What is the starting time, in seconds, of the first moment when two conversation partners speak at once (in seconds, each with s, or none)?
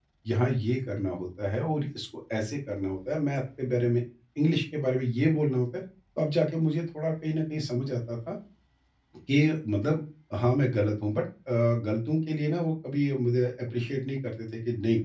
none